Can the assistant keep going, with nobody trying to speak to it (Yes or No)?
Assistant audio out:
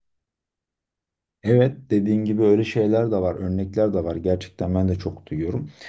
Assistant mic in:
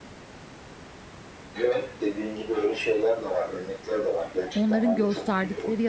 No